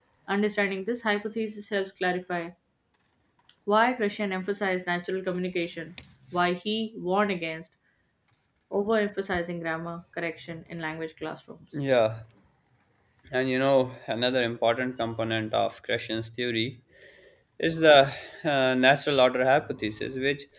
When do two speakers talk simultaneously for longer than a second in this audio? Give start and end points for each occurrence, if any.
none

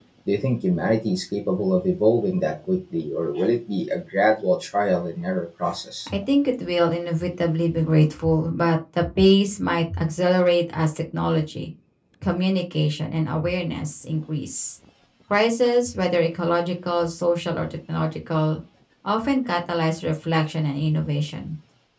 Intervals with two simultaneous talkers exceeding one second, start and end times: none

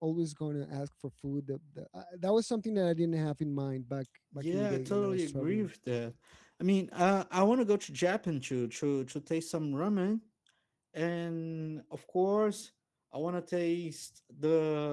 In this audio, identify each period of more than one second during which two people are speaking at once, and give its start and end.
4.3-5.7

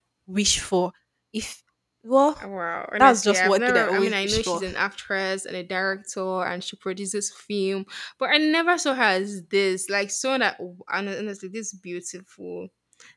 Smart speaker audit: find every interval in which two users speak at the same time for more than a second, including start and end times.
3.0-4.6

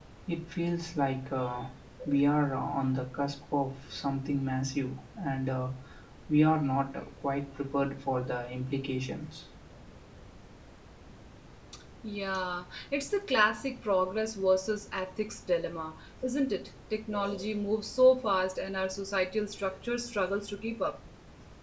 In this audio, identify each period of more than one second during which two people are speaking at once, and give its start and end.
none

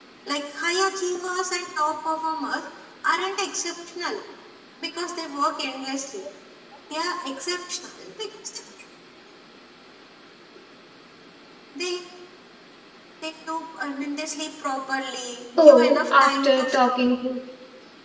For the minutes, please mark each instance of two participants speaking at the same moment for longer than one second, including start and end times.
15.6-16.8

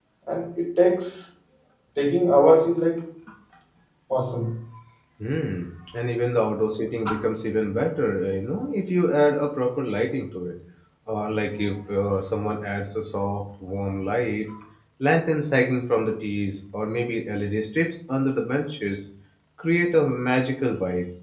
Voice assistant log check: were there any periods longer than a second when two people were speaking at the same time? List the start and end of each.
none

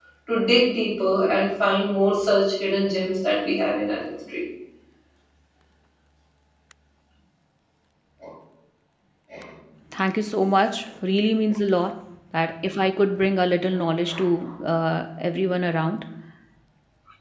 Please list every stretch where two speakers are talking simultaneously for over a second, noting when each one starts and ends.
none

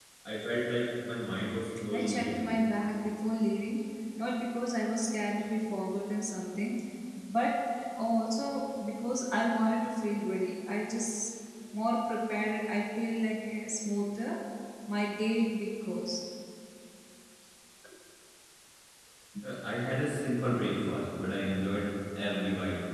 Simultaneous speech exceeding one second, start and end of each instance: none

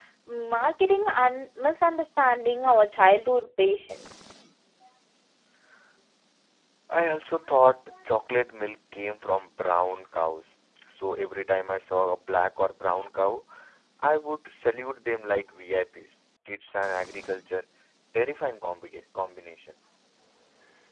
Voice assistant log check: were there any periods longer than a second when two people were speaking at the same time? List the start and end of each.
none

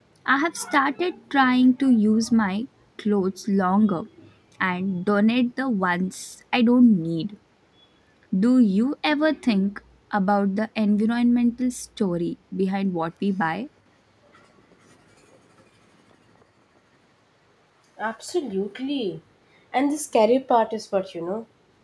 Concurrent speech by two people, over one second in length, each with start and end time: none

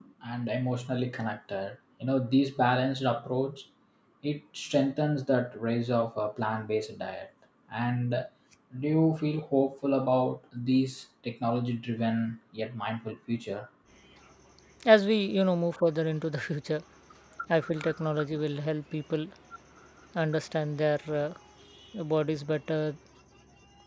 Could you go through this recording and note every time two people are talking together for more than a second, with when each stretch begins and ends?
none

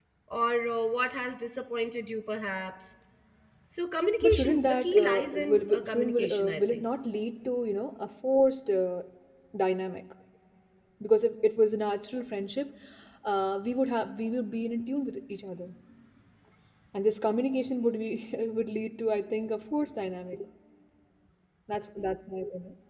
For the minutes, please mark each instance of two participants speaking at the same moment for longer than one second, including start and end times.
4.2-6.8

